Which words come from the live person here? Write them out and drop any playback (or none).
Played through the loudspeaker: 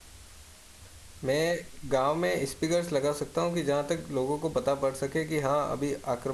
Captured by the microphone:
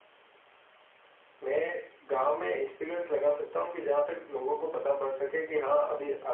none